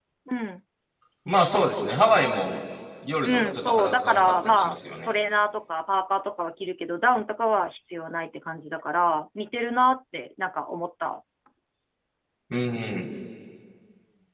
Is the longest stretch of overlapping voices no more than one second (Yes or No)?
No